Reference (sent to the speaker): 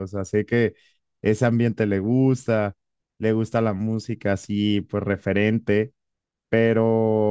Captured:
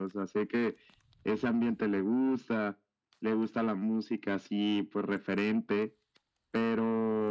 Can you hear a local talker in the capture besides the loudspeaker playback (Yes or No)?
No